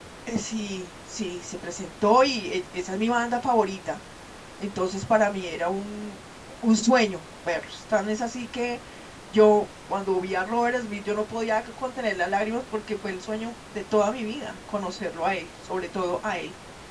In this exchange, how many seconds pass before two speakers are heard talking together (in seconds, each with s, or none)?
none